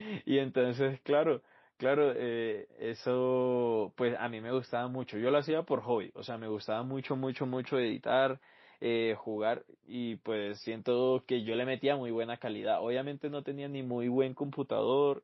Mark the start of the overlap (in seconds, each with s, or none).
none